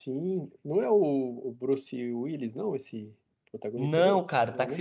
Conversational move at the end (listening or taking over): taking over